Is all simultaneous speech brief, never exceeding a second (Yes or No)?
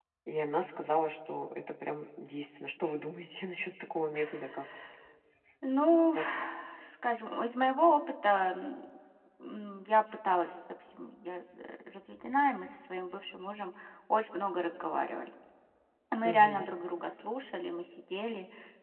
Yes